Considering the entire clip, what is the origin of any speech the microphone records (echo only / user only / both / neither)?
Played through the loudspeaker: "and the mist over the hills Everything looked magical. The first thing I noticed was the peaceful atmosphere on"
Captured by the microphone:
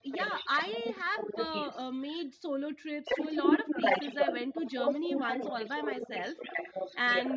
both